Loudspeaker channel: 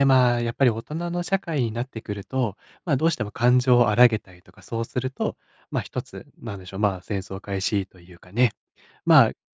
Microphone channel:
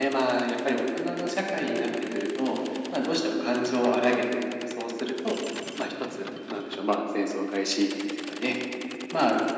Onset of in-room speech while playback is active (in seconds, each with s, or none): none